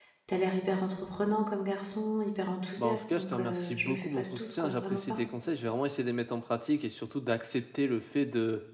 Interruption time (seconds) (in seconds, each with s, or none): 2.8 s